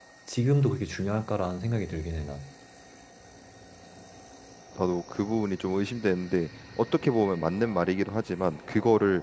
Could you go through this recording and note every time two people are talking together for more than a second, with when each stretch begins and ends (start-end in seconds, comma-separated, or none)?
none